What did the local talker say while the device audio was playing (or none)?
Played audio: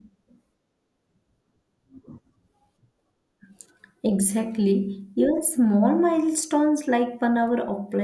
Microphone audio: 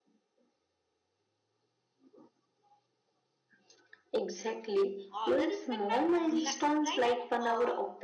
other respect my online offline and uh,